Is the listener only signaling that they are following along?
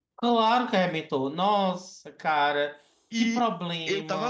No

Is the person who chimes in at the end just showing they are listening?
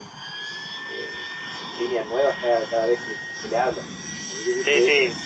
No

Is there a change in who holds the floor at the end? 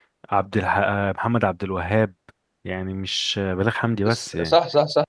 Yes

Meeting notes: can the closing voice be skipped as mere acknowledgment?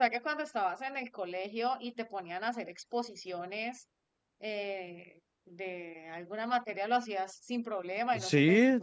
No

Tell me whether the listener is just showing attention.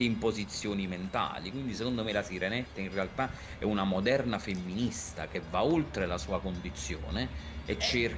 Yes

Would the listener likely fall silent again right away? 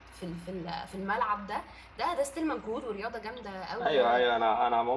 No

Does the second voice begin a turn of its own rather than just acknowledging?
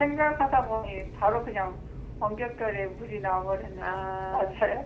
Yes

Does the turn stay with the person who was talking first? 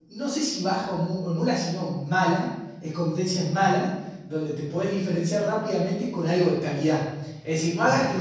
Yes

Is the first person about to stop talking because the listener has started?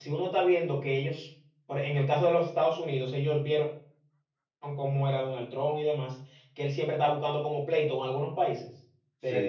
No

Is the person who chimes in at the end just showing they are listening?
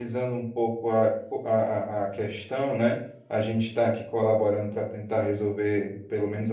Yes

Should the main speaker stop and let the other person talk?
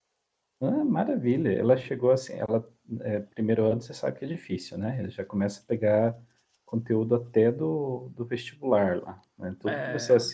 No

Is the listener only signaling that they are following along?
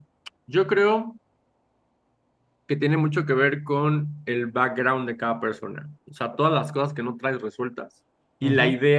Yes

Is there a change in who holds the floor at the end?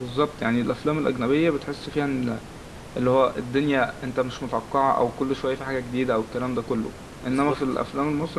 No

